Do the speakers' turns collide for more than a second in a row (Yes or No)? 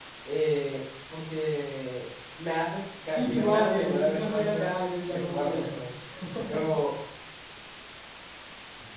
Yes